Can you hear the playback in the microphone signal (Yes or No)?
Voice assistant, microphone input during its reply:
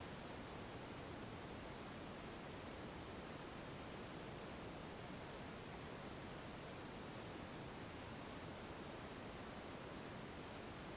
No